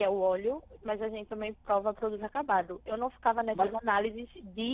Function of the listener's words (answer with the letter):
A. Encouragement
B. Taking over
A